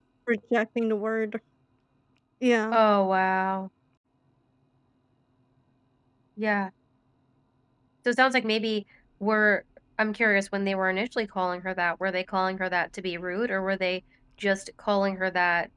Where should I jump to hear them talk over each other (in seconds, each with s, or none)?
none